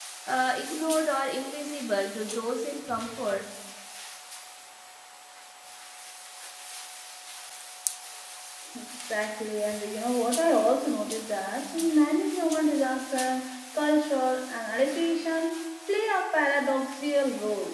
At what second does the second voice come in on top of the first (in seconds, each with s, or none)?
none